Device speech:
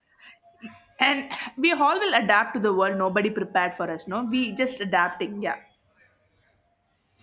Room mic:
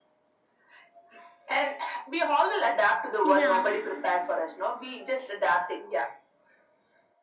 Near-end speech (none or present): present